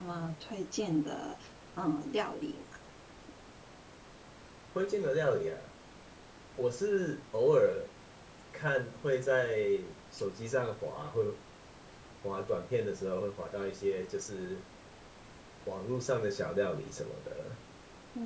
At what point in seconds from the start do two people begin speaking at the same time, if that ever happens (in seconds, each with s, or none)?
none